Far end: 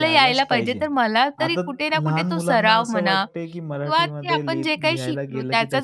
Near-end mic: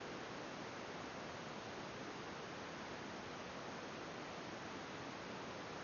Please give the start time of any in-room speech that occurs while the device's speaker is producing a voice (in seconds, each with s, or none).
none